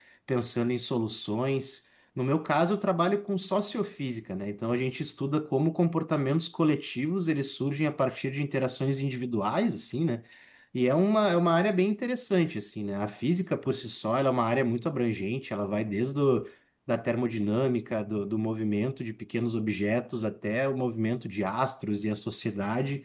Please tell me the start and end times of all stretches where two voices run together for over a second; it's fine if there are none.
none

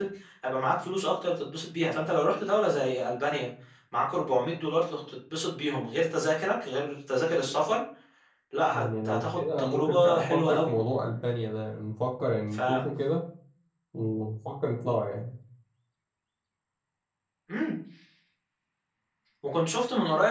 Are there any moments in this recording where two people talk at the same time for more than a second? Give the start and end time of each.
8.7-10.7

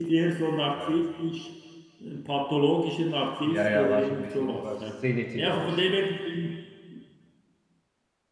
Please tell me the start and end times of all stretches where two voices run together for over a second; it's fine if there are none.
3.4-4.8

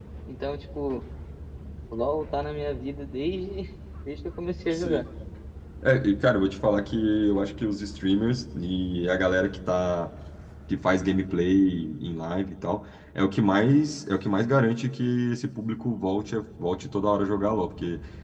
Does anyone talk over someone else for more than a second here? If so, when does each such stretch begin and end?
none

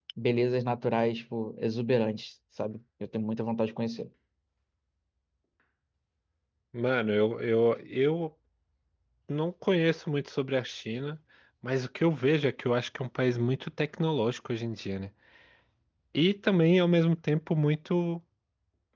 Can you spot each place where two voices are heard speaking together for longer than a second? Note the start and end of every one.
none

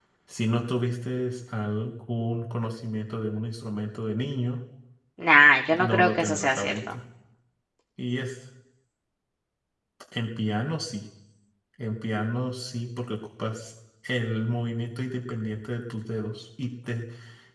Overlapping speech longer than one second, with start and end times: 5.7-7.0

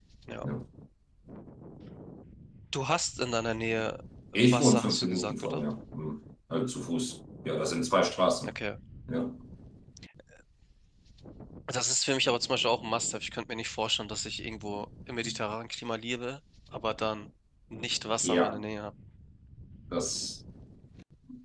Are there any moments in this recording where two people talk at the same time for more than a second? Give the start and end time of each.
4.3-5.6

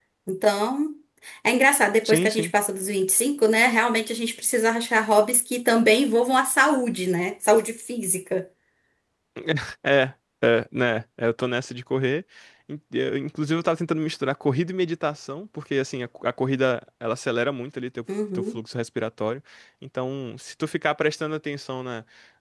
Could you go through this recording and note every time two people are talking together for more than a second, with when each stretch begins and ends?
none

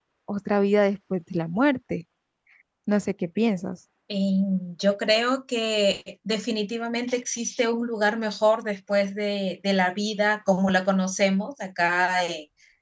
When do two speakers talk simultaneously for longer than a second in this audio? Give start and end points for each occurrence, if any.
none

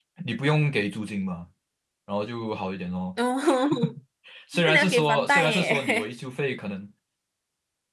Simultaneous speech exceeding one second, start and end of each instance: 4.5-6.1

